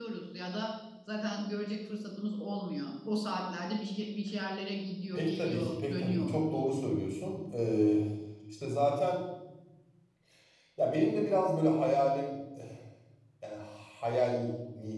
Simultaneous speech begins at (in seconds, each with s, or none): 5.1 s